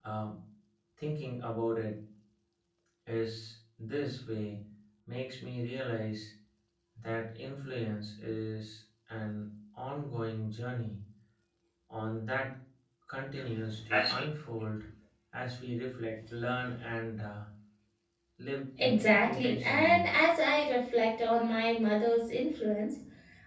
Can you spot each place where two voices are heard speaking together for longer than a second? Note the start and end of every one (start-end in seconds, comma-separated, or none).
18.8-20.1